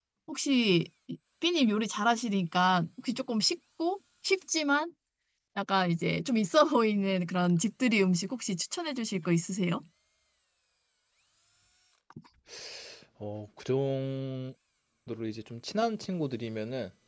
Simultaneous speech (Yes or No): No